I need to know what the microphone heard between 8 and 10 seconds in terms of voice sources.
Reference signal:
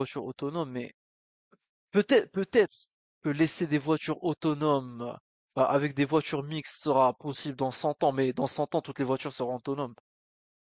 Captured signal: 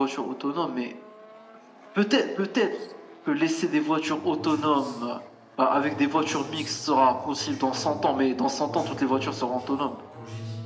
both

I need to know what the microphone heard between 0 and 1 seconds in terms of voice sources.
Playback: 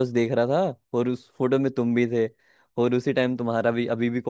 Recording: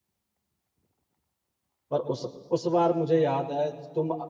neither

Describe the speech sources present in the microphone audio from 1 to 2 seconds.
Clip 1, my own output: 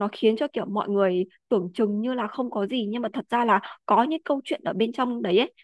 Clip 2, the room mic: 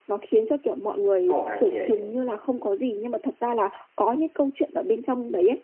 both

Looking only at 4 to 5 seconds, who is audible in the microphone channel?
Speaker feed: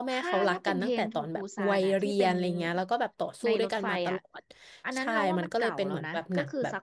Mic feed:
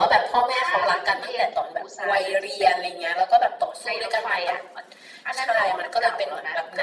echo only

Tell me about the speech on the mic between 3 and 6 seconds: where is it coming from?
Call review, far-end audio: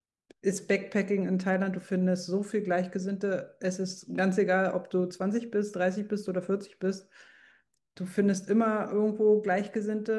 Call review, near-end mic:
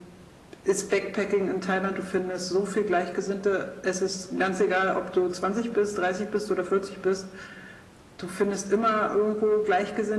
echo only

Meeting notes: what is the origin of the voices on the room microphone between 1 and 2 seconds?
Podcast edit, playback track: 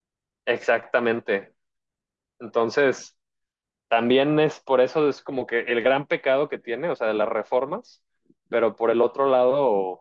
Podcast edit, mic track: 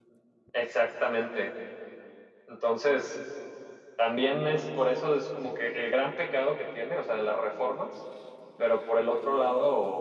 echo only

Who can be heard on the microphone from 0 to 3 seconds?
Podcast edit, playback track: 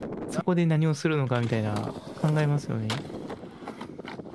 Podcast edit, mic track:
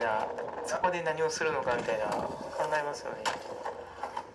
echo only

